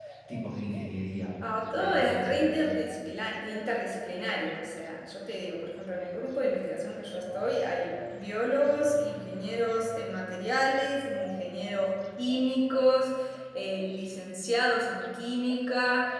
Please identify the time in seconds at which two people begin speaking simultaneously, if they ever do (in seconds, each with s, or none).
1.8 s